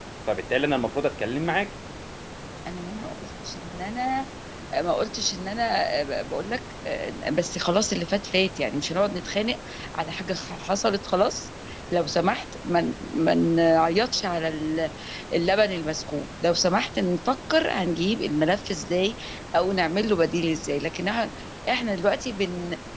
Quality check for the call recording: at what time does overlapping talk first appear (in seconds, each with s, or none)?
none